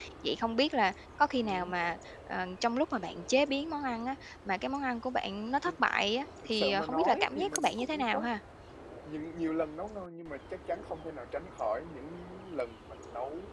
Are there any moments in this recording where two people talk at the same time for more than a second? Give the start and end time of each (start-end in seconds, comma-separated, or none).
6.5-8.3